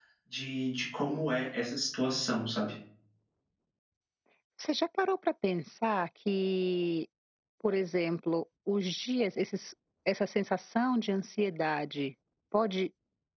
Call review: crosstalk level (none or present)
none